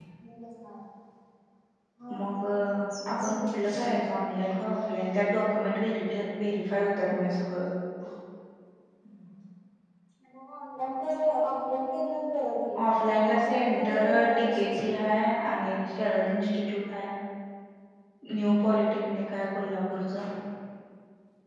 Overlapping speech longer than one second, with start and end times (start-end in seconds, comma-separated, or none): 13.3-15.0